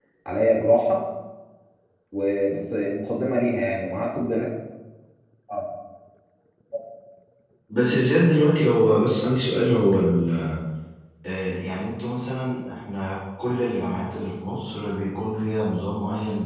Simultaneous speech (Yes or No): No